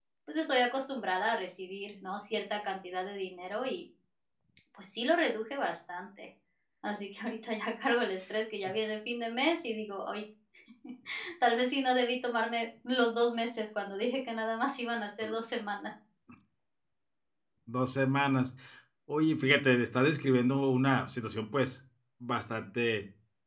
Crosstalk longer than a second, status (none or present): none